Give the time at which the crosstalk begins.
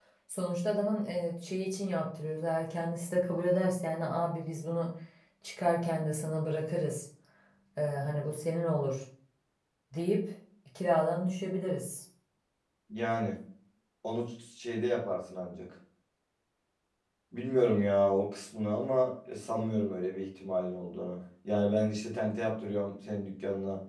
none

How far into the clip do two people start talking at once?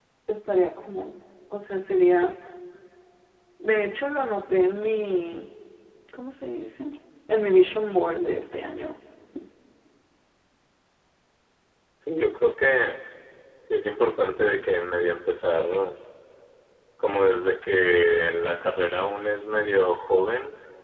none

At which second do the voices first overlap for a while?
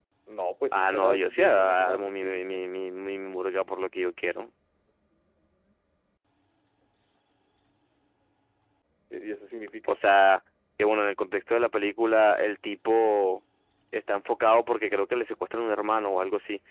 0.7 s

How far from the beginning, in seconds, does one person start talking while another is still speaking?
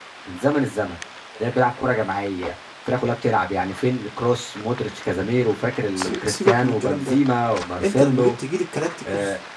6.0 s

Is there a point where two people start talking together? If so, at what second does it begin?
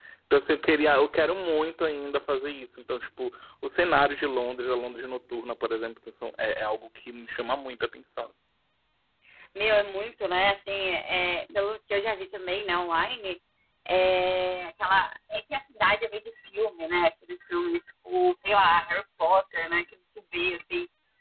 none

